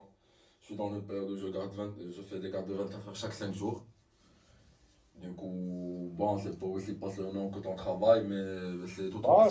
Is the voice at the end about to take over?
Yes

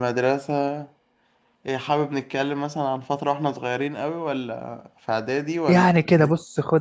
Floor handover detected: Yes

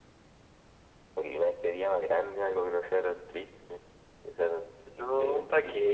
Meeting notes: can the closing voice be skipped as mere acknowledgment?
No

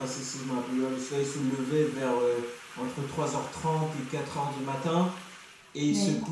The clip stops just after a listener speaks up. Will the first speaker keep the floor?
Yes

